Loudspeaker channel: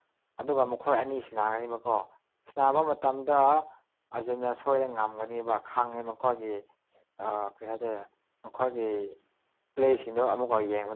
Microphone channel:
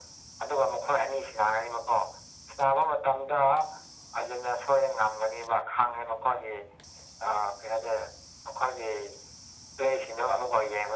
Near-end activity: none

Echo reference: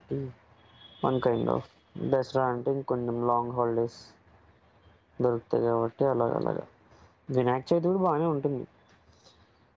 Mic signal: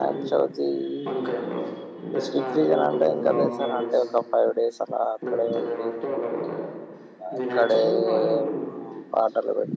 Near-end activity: present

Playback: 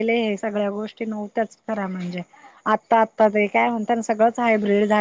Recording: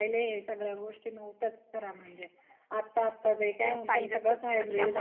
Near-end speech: present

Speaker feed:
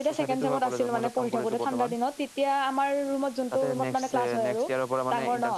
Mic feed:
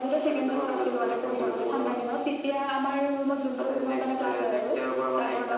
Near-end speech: none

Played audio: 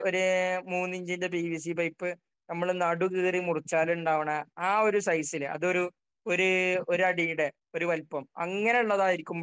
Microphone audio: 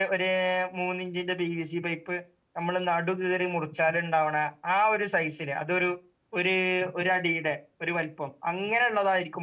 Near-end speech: none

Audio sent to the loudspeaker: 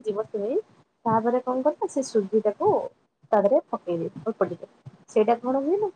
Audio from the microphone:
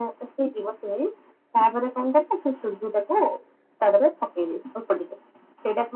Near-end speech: none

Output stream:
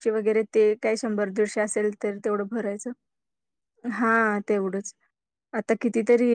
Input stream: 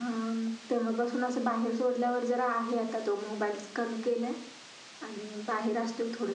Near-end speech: present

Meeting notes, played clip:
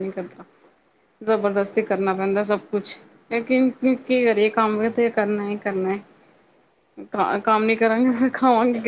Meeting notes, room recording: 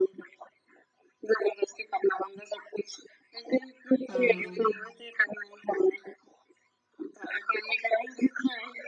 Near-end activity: present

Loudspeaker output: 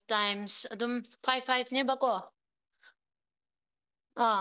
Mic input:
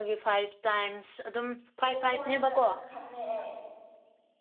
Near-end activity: present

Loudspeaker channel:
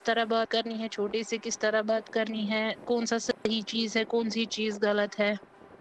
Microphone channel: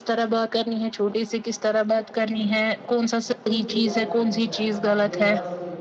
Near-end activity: present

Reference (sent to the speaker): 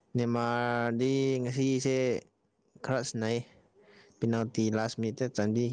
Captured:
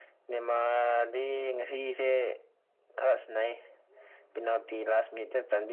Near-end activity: none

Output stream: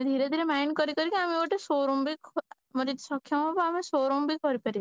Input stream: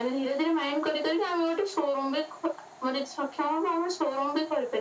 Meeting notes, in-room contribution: none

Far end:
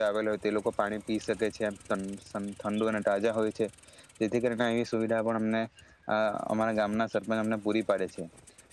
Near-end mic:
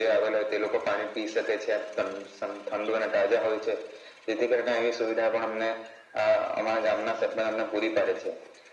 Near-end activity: none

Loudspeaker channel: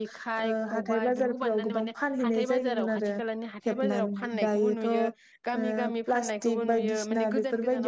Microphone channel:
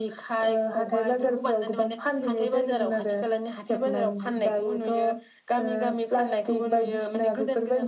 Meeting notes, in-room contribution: none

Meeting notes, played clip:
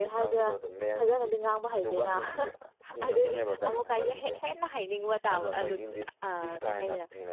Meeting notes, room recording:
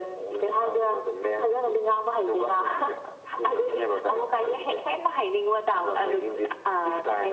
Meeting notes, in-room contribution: none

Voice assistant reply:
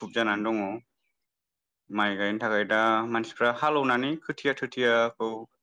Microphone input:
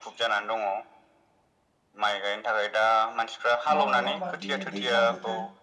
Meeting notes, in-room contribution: present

